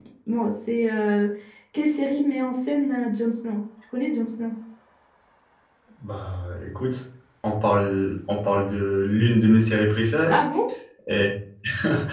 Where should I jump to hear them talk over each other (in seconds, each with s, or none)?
none